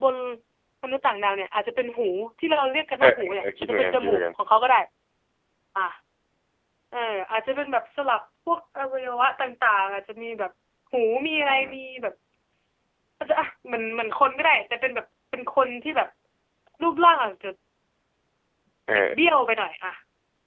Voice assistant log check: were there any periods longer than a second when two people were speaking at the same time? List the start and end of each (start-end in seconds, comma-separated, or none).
3.0-4.2